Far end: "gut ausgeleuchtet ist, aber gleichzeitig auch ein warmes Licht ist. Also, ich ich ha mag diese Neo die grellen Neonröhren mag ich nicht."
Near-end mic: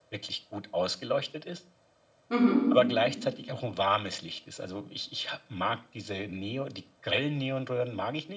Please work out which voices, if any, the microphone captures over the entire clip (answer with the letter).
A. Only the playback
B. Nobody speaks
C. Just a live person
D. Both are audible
D